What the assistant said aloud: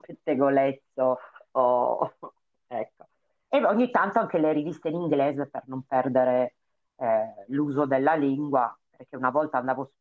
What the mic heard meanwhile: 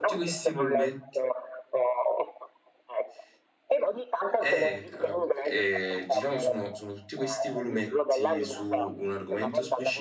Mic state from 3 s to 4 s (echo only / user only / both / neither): echo only